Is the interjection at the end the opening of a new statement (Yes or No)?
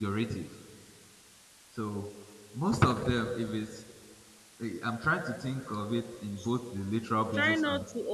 Yes